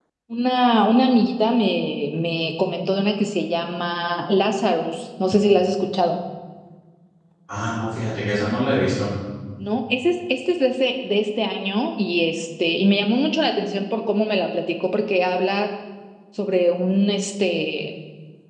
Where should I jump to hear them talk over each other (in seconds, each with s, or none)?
none